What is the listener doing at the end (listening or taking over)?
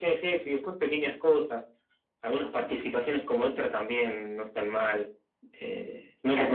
taking over